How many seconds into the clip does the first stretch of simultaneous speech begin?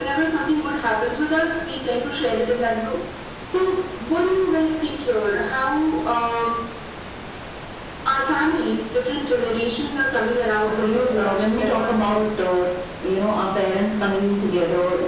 10.6 s

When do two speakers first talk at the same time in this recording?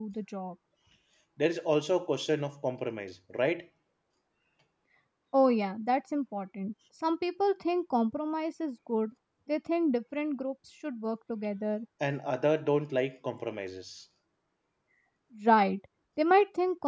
none

